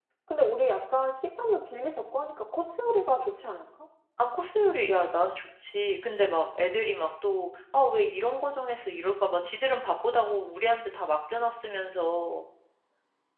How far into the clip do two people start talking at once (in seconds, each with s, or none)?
none